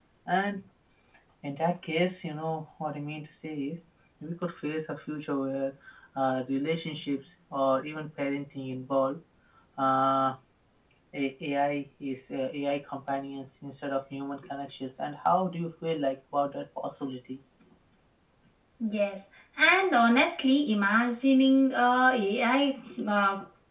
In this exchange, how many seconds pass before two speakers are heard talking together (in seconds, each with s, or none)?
none